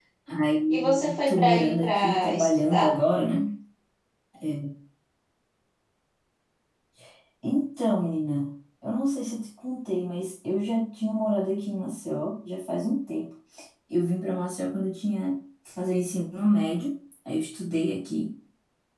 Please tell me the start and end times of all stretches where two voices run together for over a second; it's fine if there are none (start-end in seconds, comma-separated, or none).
0.7-2.9